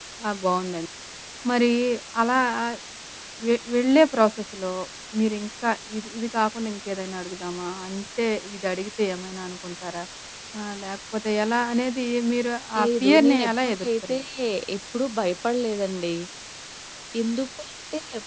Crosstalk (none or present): present